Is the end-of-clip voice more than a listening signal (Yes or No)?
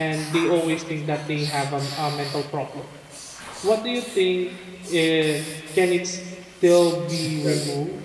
Yes